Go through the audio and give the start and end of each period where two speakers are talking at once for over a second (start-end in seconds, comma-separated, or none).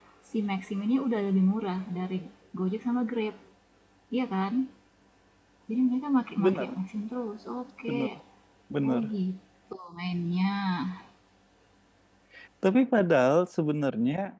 none